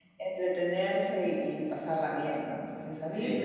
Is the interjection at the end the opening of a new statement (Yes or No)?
No